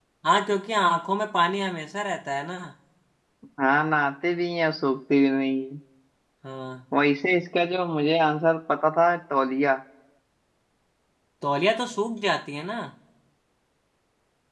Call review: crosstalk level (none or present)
none